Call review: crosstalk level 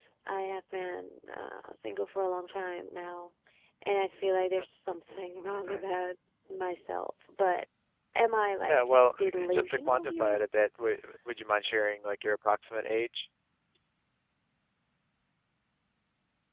present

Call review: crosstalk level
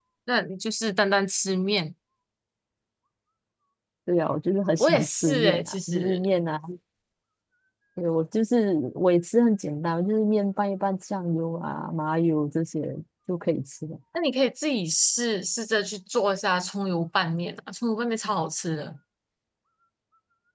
present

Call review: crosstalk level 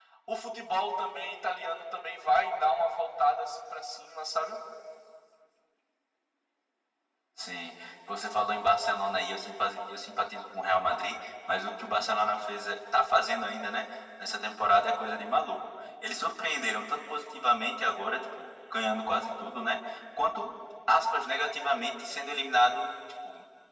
none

